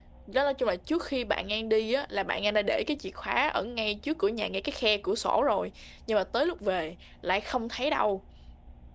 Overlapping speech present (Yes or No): No